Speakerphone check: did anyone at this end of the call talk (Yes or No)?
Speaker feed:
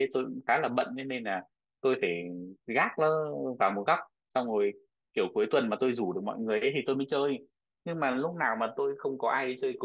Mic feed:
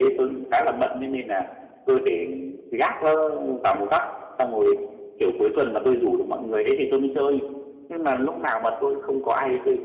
No